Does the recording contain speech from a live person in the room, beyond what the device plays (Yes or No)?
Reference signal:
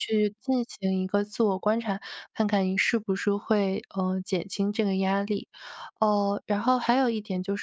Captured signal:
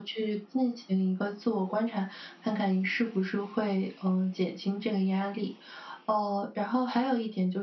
No